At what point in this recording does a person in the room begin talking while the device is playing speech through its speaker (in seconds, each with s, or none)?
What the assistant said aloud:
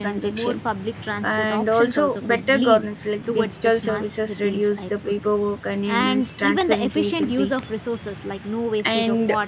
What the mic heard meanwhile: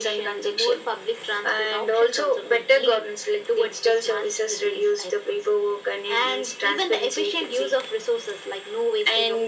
none